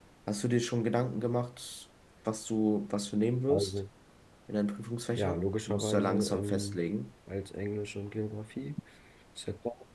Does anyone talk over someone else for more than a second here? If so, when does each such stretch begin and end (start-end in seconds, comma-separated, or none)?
5.2-6.8